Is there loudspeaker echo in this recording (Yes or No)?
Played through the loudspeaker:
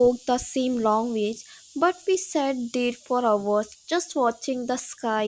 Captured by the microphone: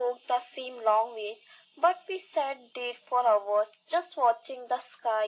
Yes